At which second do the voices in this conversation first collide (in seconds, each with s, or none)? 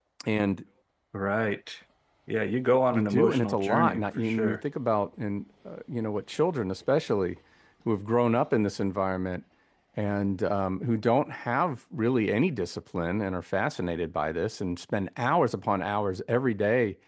2.9 s